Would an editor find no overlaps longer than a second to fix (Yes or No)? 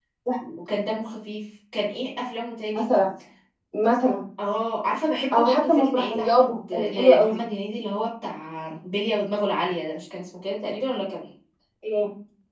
No